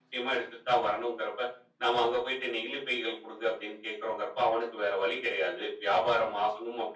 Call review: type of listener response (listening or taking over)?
listening